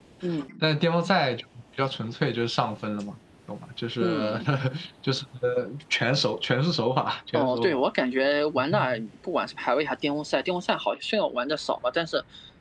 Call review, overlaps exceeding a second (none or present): none